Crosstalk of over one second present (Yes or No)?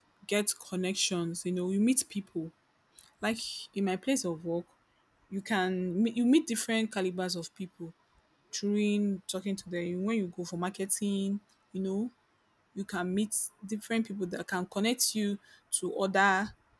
No